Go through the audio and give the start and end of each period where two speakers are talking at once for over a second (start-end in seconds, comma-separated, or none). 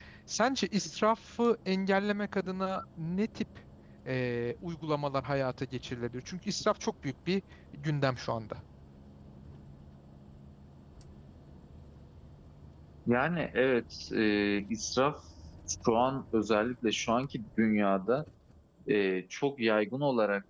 none